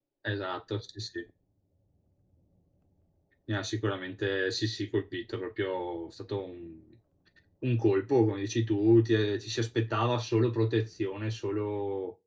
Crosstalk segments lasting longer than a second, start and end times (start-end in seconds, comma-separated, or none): none